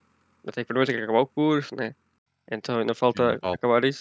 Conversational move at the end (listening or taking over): listening